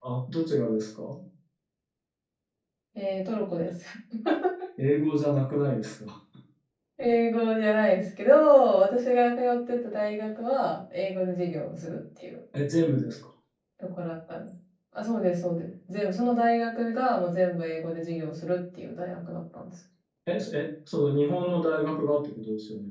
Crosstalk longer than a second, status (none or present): none